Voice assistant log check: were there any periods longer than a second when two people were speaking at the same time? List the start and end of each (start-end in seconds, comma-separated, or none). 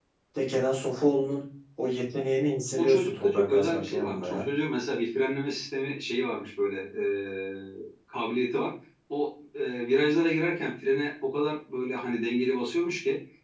2.8-4.5